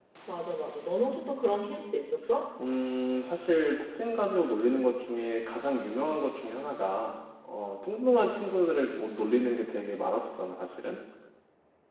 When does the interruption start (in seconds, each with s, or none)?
none